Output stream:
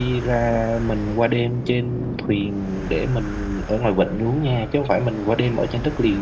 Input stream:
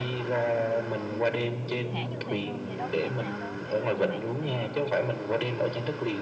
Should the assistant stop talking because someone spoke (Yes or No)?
Yes